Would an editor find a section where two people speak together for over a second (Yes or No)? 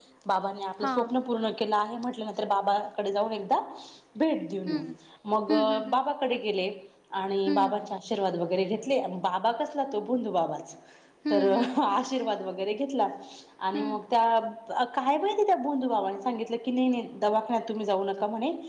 No